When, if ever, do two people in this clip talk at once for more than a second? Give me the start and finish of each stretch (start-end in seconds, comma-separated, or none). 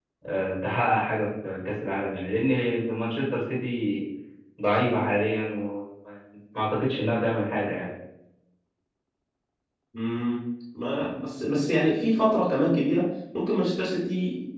none